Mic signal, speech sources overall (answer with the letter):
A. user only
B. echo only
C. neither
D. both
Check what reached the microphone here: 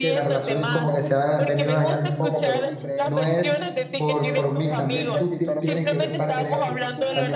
D